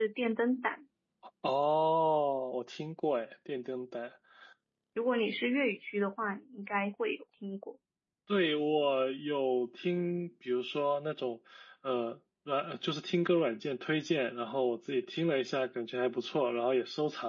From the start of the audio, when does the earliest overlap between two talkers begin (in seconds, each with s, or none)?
none